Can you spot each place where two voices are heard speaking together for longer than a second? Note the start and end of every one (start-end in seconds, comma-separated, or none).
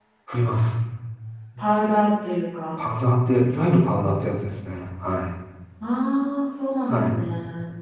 none